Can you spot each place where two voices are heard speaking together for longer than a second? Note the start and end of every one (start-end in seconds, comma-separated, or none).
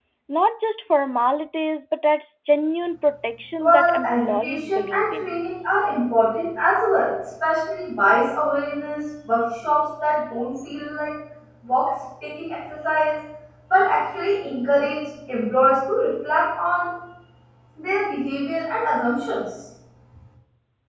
3.6-5.3